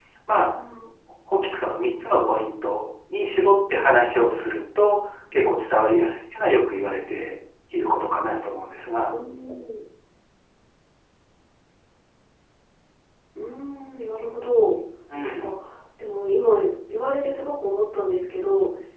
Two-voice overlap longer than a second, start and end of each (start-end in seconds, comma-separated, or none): none